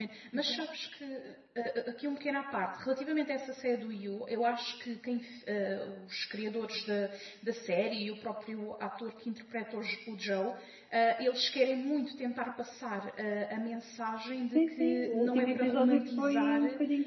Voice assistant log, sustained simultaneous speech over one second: present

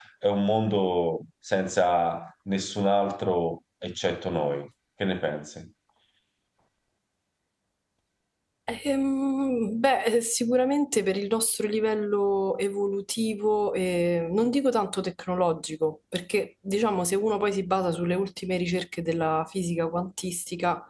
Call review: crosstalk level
none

